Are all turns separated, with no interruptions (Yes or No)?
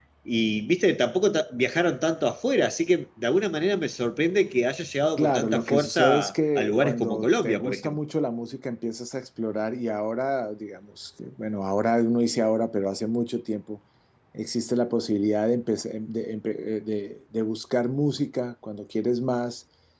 No